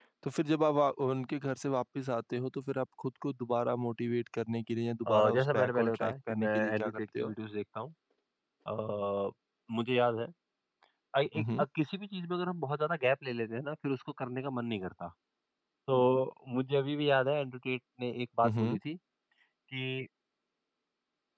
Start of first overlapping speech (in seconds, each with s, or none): 5.1 s